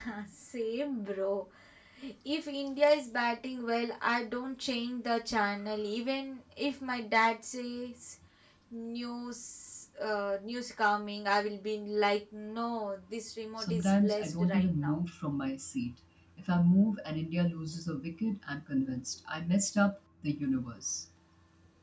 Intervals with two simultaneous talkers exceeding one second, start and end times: 13.6-15.0

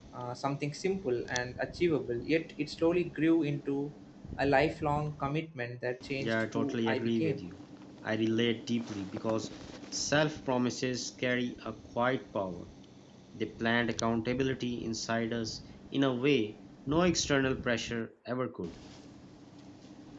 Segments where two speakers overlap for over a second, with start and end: 6.2-7.4

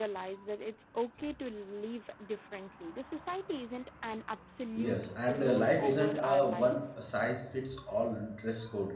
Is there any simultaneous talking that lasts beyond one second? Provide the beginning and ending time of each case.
4.8-6.8

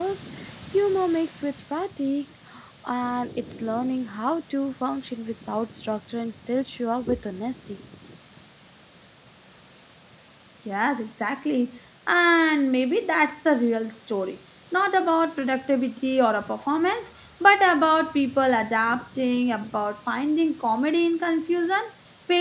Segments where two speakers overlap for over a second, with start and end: none

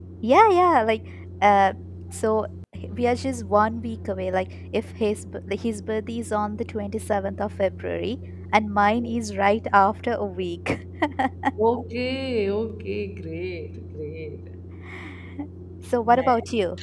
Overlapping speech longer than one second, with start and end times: none

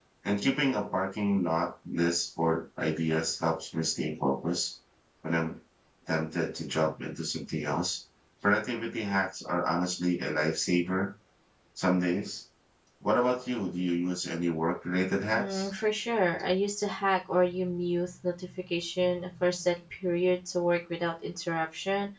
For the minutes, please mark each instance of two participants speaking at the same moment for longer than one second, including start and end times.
none

